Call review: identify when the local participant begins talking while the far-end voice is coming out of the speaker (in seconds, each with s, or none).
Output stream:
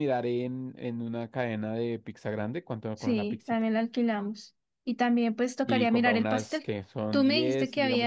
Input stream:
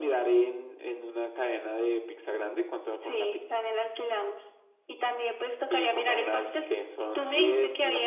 none